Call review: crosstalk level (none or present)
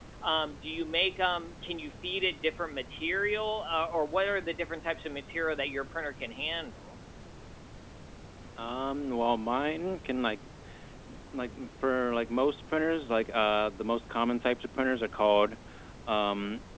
none